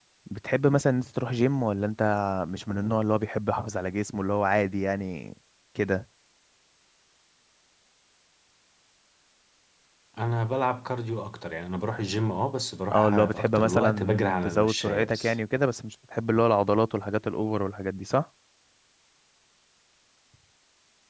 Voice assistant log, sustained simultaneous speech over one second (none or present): present